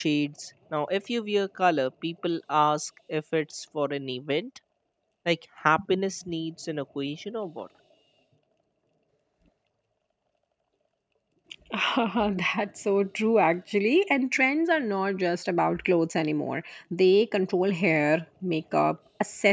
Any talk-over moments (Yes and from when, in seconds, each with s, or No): No